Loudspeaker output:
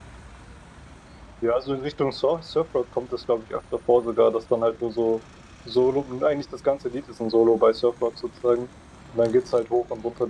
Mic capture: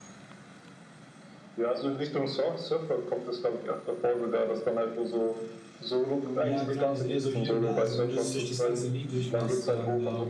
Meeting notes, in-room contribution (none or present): present